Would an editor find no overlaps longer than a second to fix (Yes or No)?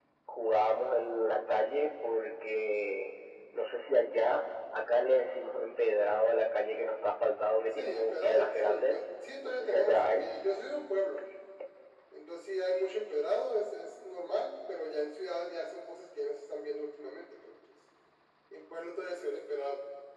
No